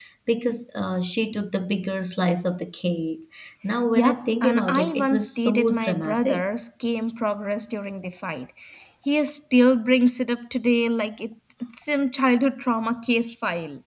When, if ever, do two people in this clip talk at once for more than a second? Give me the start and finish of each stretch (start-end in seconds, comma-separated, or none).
4.0-6.5